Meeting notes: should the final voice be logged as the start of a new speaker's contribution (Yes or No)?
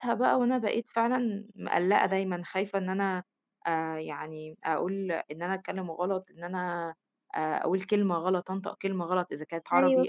No